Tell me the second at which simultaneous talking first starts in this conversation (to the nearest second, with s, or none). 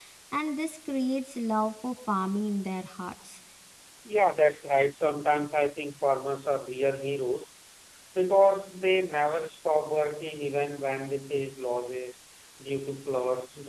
none